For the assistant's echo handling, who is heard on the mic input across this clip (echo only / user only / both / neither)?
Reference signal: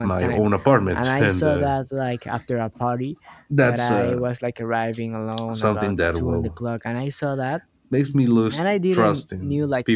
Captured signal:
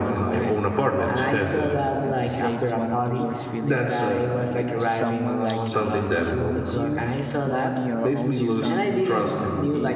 both